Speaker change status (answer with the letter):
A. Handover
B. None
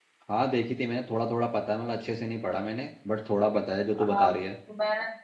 A